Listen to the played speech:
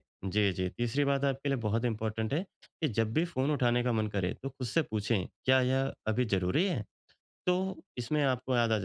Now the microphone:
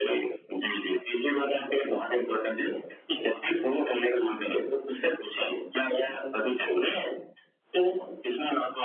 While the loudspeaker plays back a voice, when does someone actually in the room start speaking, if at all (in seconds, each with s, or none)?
none